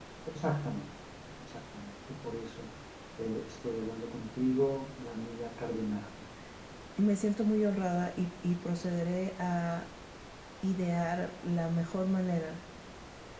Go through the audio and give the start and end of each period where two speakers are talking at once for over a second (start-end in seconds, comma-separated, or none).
none